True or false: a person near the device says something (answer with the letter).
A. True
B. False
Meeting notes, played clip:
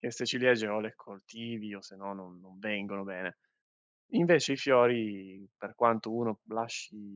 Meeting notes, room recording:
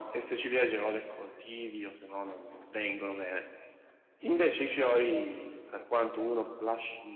B